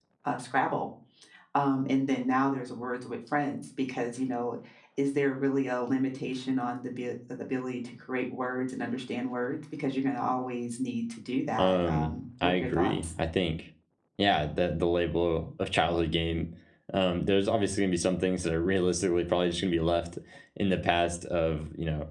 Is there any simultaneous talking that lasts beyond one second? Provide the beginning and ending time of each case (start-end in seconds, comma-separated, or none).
11.6-13.1